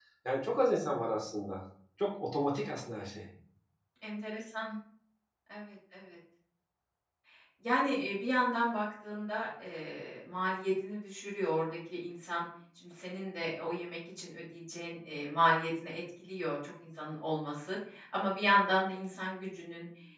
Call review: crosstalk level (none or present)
none